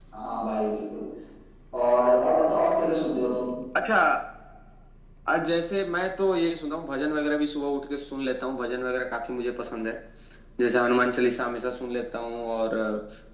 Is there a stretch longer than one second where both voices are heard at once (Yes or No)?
No